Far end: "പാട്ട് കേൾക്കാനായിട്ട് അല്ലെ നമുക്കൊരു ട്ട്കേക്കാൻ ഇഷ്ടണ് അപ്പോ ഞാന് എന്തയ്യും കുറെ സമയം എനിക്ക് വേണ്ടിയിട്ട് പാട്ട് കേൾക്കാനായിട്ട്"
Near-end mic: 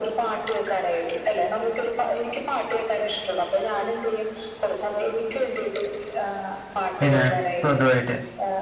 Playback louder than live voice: No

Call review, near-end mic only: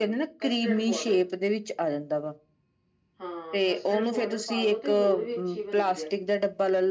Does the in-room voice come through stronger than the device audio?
Yes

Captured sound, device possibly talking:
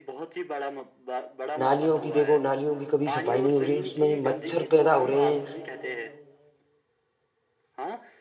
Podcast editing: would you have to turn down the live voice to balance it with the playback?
Yes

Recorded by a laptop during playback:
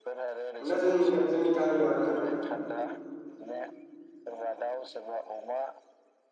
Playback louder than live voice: No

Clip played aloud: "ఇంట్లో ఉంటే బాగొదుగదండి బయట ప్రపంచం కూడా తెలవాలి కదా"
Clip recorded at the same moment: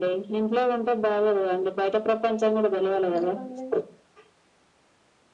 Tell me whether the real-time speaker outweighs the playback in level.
No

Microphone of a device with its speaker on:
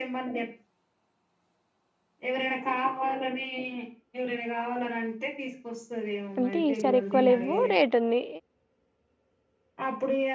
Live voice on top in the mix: Yes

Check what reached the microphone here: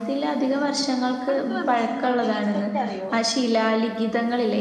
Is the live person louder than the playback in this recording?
No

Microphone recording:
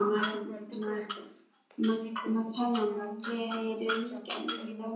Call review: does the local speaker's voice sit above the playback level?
Yes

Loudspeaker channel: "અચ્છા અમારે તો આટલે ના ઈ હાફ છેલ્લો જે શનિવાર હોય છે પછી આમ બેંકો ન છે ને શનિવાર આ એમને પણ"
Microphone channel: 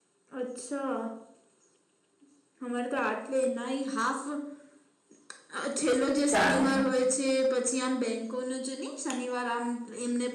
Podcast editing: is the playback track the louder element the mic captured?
No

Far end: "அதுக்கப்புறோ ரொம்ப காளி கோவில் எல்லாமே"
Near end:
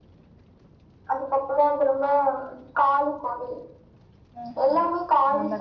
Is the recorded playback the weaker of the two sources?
No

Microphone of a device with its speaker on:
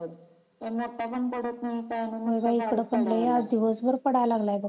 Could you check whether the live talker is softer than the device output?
No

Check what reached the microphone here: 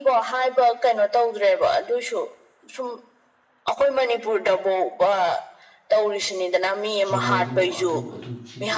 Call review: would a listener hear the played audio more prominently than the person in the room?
Yes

